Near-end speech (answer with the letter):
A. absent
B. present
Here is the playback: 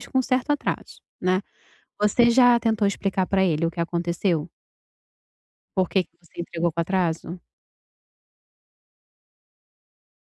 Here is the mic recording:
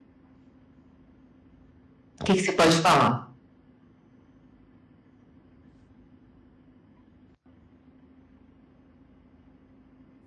B